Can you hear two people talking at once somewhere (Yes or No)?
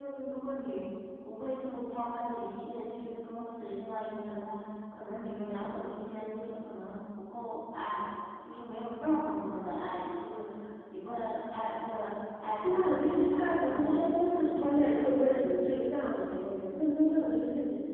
Yes